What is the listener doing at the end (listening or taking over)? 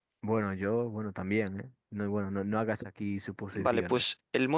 taking over